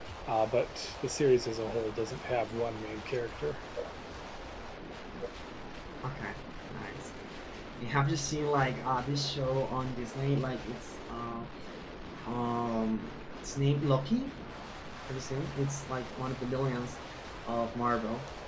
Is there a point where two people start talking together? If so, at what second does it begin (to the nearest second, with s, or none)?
none